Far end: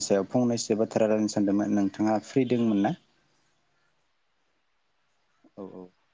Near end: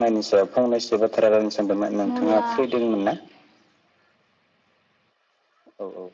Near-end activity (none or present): present